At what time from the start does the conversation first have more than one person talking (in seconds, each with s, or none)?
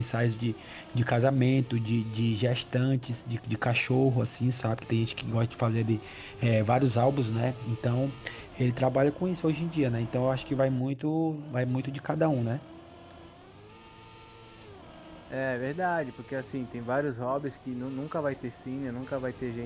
none